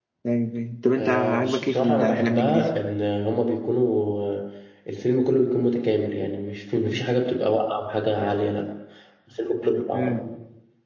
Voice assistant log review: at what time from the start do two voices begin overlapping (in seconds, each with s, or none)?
1.0 s